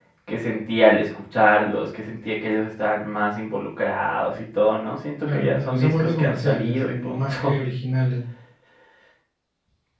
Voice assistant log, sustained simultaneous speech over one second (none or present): present